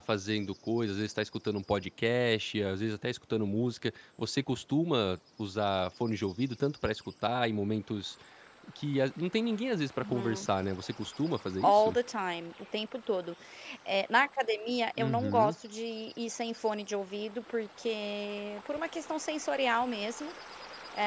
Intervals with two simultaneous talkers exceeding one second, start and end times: none

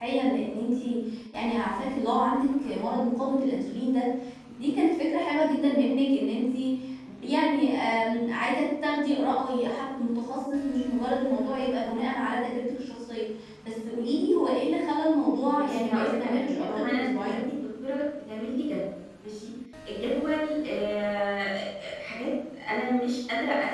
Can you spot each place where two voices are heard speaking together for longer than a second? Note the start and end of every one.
15.6-17.4

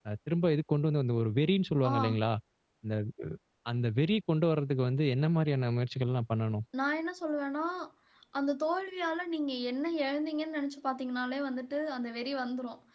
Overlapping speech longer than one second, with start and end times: none

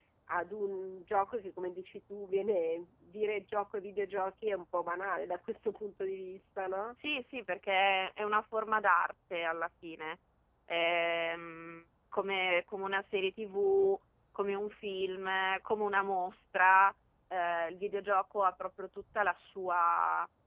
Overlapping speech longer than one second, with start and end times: none

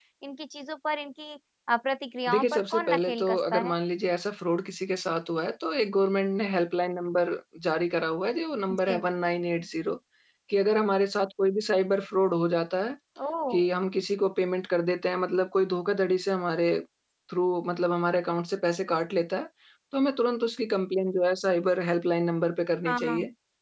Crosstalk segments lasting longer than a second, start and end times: 2.3-3.8

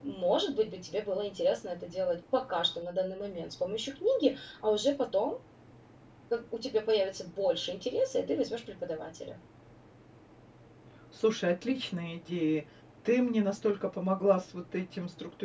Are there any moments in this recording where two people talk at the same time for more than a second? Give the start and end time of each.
none

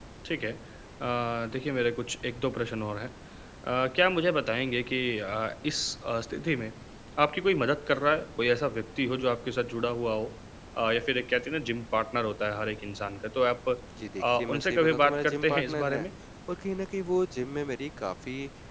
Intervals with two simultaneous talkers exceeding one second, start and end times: 14.2-16.1

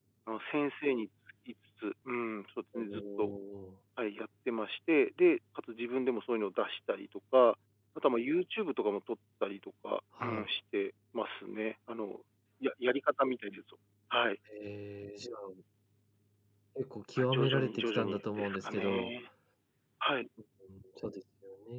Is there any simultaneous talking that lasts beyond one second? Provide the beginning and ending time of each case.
17.2-19.1

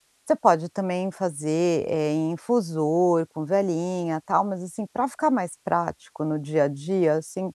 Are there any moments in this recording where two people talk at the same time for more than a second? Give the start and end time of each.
none

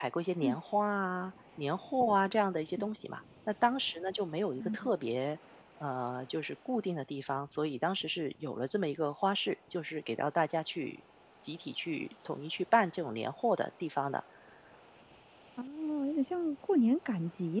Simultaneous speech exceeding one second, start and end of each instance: none

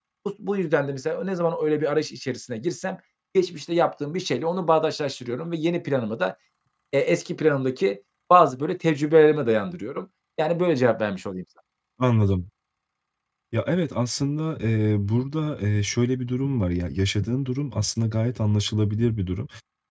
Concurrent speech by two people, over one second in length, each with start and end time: none

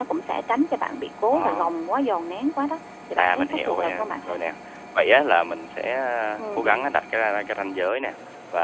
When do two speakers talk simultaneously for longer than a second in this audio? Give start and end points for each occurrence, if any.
3.2-4.4

